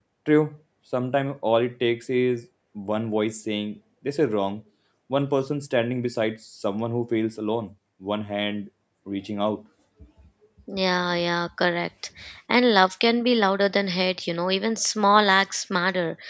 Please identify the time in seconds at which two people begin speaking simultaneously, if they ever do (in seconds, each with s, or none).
none